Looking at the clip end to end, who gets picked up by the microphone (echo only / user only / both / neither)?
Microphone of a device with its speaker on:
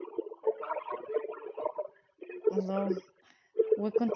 both